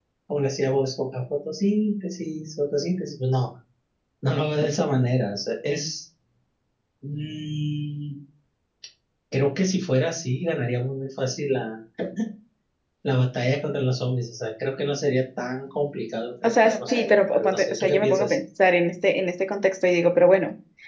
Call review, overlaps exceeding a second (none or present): present